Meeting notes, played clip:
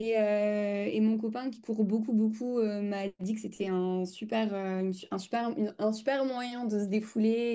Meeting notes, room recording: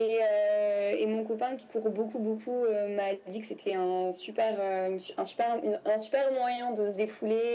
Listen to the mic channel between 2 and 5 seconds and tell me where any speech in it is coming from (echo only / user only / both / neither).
echo only